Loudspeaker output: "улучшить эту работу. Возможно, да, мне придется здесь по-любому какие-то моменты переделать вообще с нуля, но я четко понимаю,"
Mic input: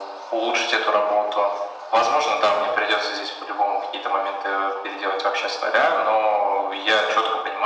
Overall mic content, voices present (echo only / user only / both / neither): echo only